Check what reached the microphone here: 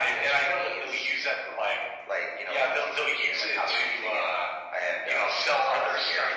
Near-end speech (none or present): none